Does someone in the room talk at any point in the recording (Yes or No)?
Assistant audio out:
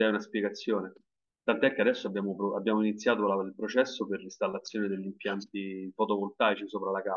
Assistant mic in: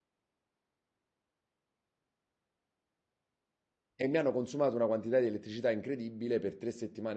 Yes